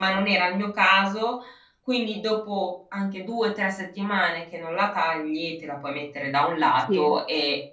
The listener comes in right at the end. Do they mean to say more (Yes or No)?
No